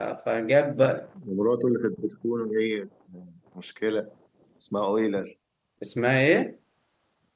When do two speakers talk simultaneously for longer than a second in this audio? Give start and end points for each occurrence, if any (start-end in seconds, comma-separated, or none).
none